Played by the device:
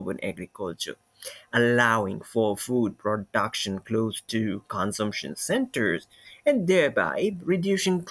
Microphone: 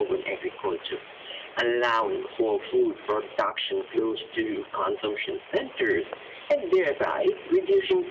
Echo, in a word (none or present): present